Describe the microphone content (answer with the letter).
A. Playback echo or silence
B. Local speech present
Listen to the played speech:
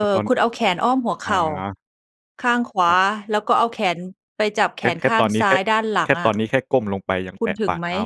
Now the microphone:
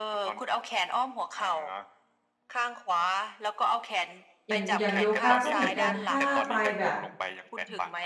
B